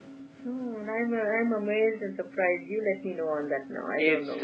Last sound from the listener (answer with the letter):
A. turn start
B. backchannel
A